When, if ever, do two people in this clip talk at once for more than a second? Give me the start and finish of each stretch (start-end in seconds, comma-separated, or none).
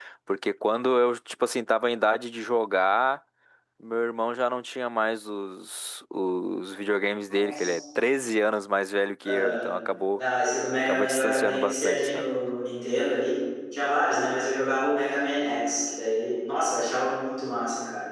10.9-12.3